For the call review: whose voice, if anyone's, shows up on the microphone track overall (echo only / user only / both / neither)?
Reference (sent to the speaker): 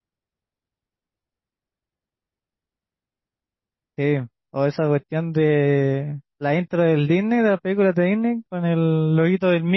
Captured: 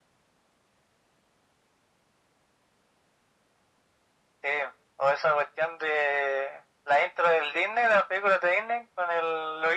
echo only